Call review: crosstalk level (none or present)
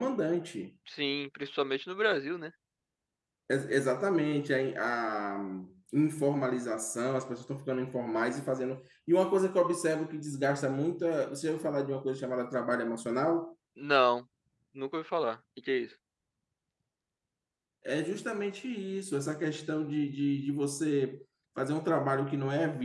none